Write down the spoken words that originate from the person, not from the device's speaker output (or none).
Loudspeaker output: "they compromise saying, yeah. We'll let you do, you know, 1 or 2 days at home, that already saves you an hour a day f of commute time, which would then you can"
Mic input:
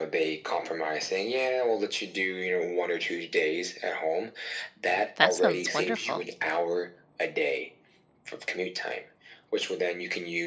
That sounds wonderful.